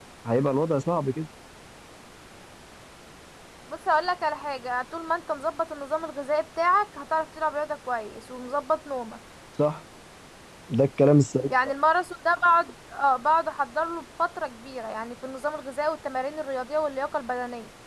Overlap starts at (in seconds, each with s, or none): none